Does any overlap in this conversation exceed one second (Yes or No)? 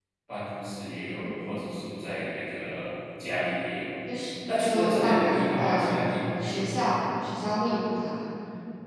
Yes